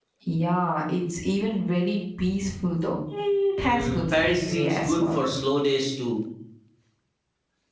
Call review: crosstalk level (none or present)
present